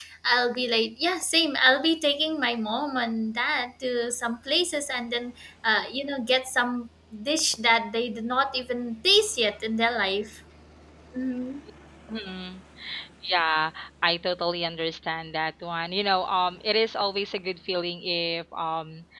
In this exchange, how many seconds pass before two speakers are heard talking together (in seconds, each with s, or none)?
none